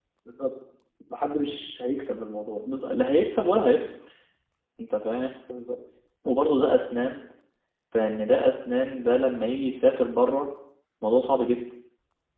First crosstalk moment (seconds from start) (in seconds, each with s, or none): none